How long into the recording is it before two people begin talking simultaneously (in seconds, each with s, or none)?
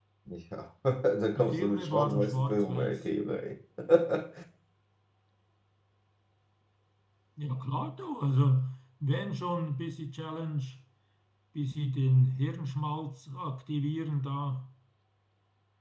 1.4 s